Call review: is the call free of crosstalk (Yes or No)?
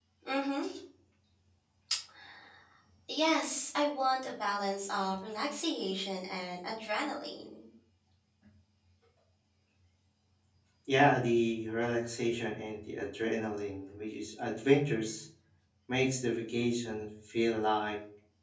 Yes